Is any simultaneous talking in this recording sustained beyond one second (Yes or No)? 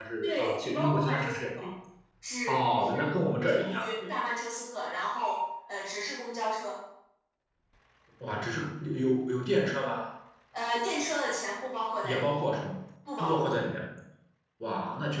Yes